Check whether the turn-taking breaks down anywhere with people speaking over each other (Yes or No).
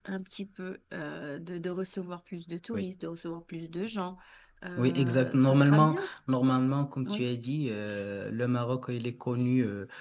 Yes